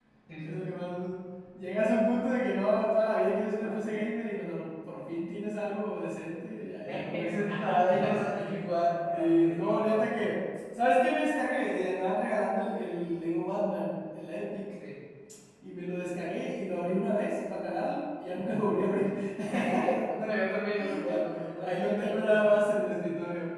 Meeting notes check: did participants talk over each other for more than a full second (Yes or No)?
Yes